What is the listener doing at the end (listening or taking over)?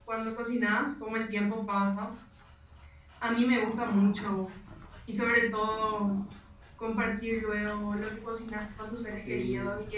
listening